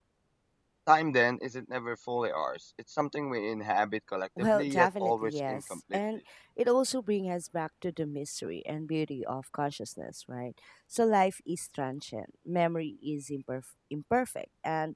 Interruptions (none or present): present